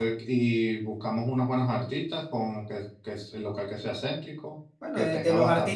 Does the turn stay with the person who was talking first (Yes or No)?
No